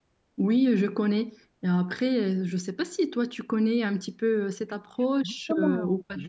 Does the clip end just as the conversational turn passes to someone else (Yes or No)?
Yes